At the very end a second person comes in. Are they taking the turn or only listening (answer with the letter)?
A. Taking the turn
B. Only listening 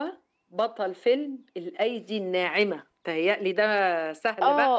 A